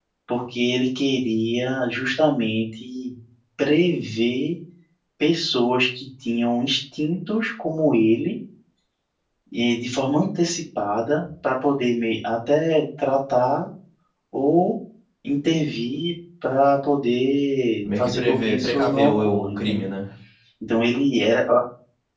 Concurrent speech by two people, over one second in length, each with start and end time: 17.8-19.8

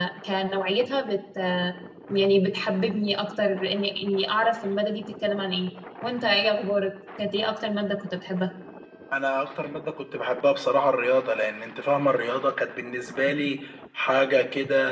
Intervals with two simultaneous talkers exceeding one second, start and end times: none

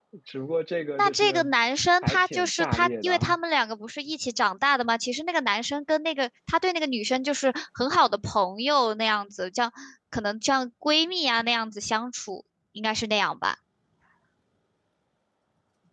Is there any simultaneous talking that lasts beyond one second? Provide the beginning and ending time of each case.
2.0-3.4

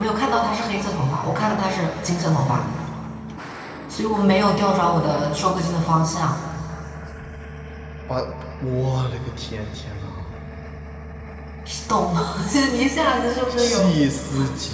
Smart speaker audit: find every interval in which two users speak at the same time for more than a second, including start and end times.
none

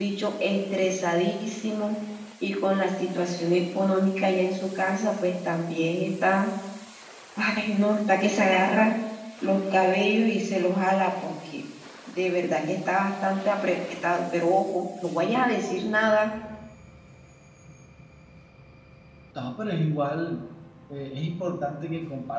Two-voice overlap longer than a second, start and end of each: none

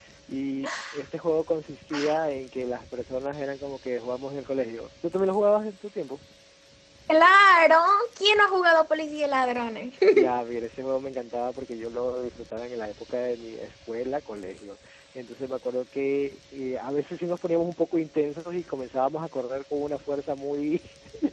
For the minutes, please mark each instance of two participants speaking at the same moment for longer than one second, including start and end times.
none

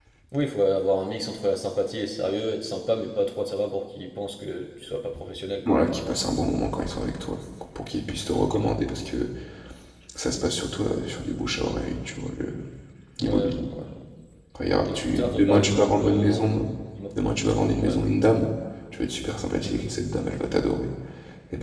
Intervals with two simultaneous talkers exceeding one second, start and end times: 14.8-16.5

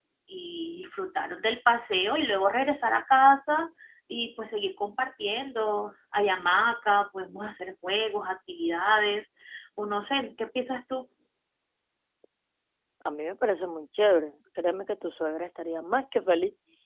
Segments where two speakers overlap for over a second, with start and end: none

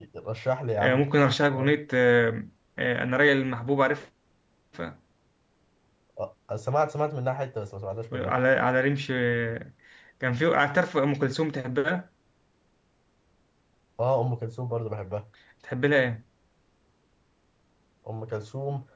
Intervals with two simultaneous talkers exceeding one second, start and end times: none

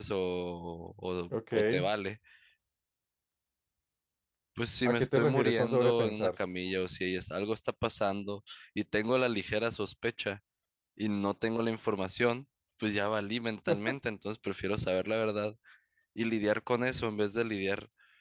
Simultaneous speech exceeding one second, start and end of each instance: 4.8-6.3

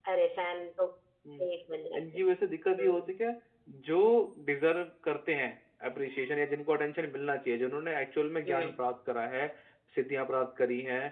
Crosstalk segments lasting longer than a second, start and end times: none

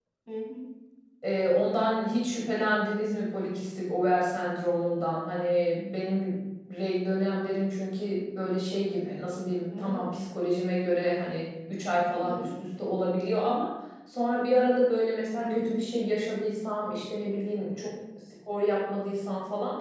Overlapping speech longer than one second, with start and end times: none

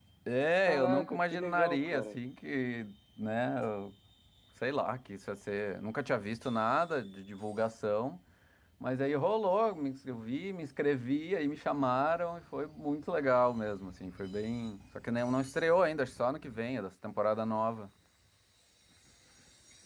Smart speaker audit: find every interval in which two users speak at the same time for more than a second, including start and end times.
0.7-2.2

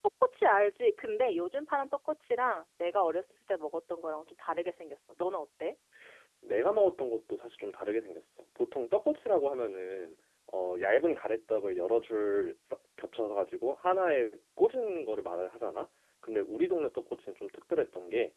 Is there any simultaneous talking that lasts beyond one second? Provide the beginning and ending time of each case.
none

